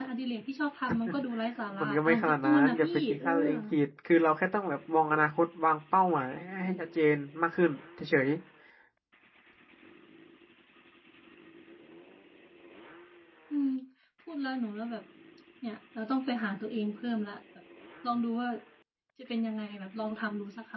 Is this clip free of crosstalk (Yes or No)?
No